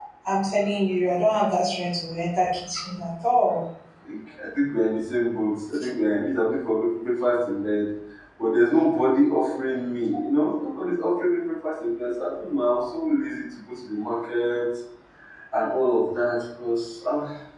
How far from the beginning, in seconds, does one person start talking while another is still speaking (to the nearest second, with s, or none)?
none